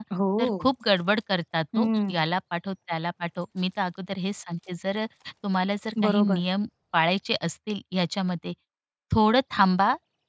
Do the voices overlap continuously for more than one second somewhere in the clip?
No

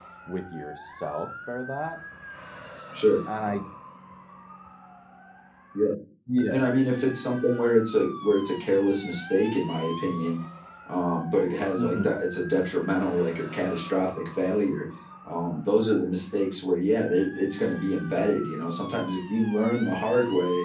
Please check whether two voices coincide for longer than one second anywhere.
No

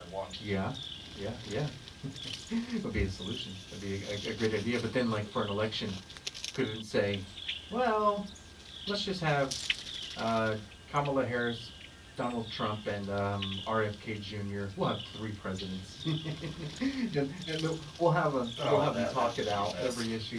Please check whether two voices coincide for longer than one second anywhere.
Yes, from 18.6 s

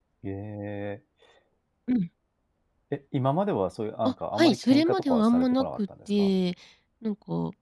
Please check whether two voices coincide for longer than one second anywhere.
Yes, from 4.0 s

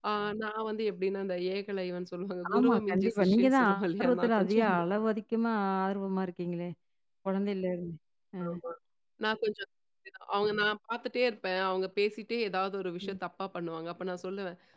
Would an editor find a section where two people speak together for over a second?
Yes, from 2.6 s

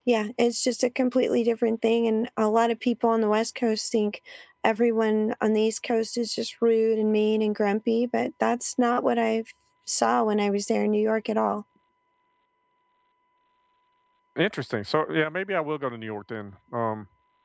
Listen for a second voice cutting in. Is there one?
No

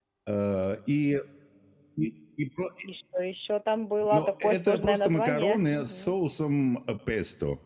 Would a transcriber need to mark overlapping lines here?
Yes, from 4.0 s

